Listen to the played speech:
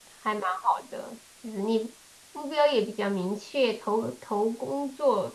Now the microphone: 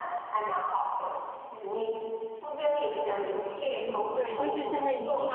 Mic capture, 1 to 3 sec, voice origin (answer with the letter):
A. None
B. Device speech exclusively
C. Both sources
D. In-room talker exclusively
B